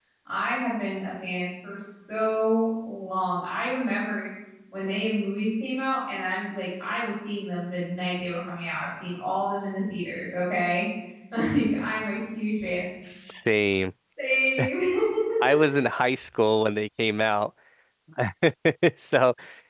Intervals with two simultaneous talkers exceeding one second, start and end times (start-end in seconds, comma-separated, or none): none